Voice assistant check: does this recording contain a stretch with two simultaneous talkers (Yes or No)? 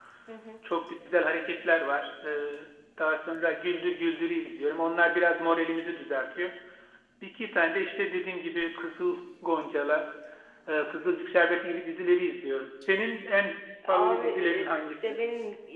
Yes